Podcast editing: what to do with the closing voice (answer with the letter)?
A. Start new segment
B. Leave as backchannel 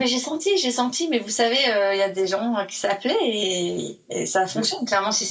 B